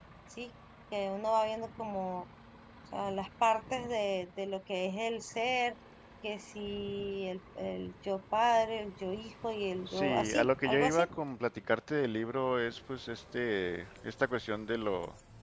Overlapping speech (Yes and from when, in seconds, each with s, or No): Yes, from 9.9 s